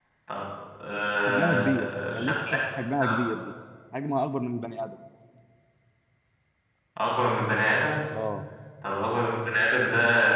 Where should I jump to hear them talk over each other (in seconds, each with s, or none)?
1.3 s